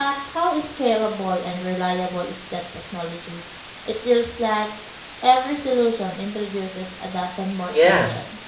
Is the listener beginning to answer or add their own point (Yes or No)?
Yes